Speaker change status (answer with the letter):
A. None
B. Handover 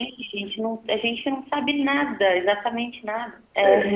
B